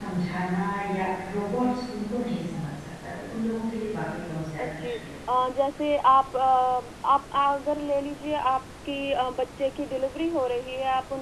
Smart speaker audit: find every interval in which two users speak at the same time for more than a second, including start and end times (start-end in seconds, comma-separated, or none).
none